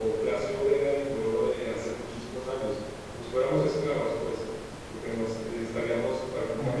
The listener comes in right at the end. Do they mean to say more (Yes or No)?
No